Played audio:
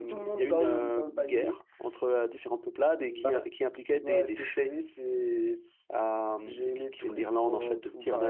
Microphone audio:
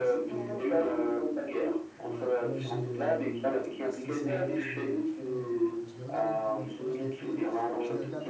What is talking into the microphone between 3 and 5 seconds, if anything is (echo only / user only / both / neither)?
both